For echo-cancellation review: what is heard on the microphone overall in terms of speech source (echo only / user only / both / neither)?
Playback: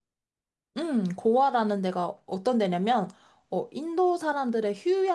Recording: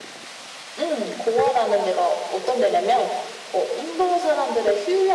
echo only